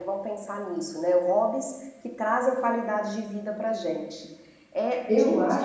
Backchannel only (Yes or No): No